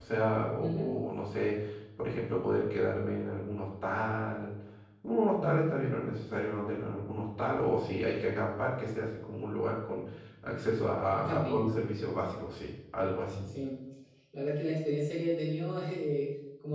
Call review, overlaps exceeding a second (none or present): none